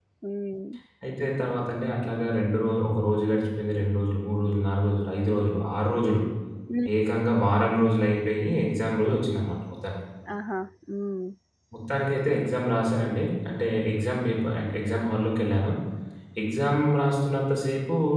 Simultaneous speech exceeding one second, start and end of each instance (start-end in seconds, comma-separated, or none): none